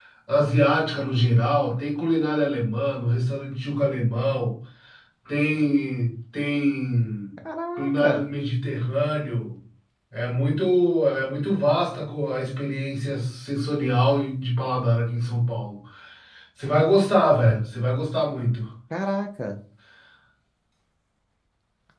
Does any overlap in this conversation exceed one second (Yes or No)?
No